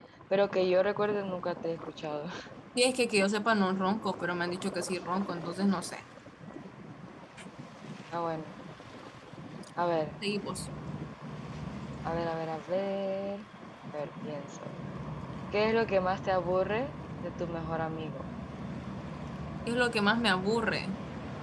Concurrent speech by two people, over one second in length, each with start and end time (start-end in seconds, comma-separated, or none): none